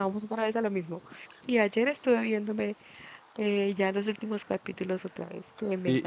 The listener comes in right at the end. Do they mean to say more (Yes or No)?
Yes